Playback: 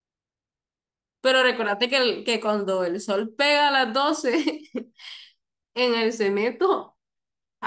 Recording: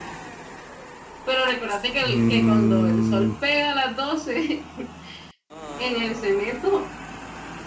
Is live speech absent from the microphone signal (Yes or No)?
No